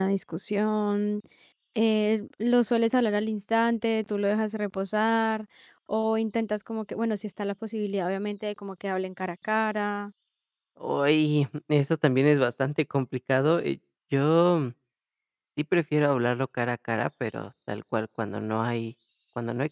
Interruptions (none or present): none